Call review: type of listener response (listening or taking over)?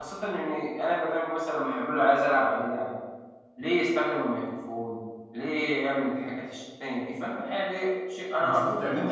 taking over